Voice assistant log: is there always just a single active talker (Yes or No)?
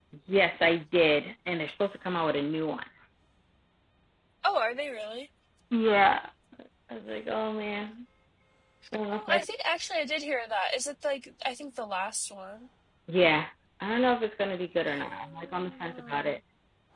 No